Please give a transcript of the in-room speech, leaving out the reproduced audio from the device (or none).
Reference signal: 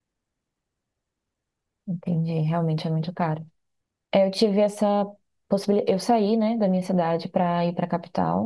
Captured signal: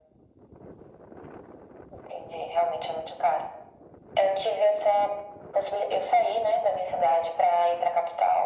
none